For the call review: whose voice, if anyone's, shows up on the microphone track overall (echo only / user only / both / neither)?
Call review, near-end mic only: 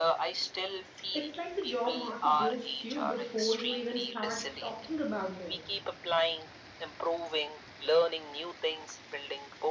both